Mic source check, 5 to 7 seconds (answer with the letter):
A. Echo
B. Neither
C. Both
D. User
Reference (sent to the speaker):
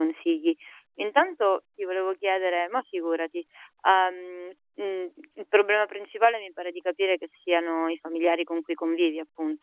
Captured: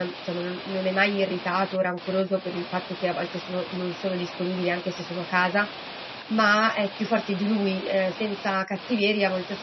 D